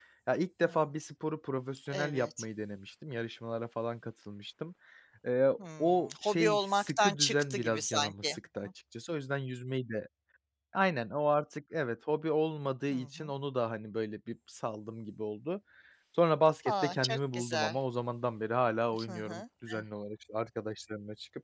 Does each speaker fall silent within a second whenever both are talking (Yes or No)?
No